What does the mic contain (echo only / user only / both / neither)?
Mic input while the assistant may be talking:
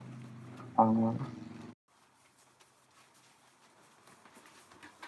user only